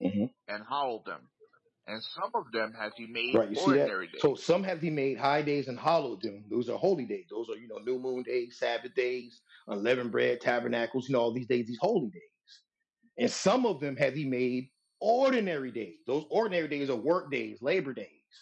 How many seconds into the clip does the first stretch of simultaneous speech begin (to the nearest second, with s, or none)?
3 s